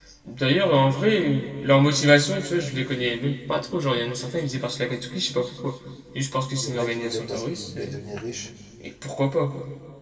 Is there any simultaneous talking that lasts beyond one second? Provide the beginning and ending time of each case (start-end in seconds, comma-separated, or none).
6.6-8.0